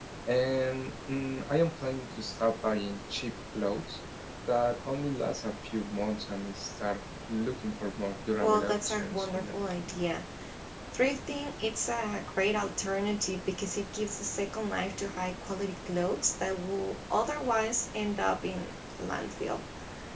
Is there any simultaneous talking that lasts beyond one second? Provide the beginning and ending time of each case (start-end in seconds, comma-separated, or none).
8.4-9.6